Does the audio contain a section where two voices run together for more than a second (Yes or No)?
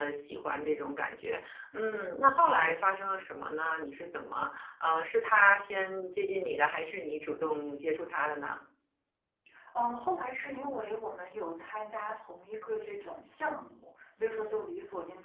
No